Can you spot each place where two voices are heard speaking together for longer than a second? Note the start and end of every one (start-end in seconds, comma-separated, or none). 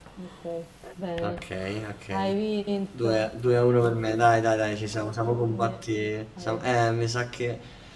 none